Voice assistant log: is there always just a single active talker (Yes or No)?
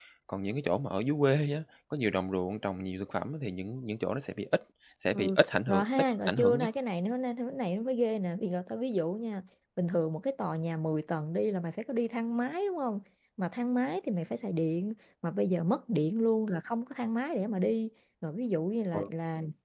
No